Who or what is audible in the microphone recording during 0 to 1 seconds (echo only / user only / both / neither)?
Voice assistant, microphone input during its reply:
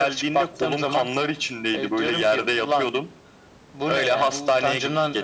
echo only